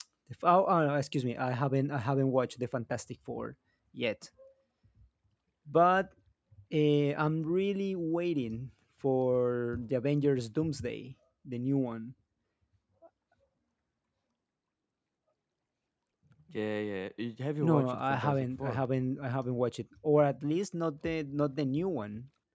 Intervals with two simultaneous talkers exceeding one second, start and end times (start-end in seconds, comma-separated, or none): 17.6-18.8